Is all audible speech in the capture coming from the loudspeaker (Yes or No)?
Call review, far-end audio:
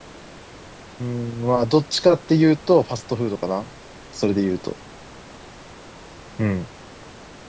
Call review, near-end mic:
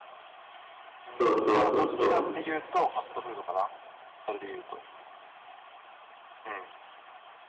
No